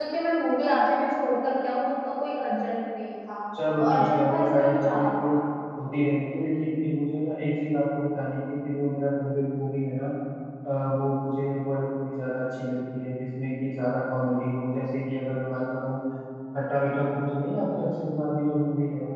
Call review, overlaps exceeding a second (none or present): present